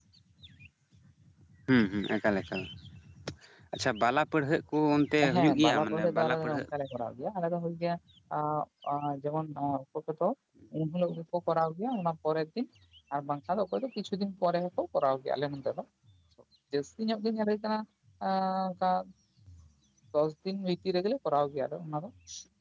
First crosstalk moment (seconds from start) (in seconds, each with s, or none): 5.2 s